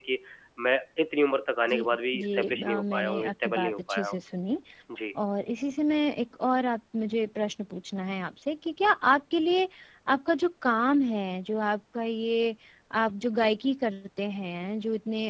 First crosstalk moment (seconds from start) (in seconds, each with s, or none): 1.7 s